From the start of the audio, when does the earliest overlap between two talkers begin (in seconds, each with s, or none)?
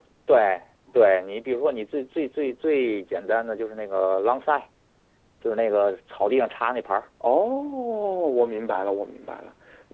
none